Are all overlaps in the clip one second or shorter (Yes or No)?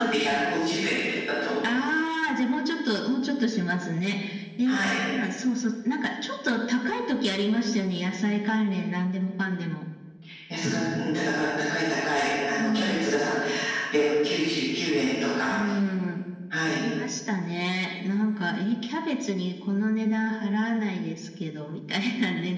Yes